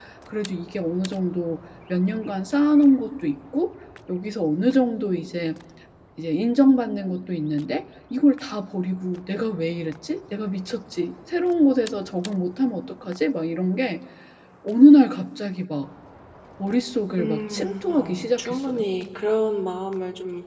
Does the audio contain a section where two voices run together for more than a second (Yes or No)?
Yes